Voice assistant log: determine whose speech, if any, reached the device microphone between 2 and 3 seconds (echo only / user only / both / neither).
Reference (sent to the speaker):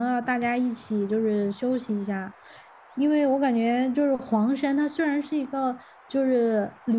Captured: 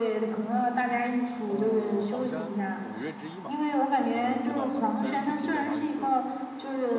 both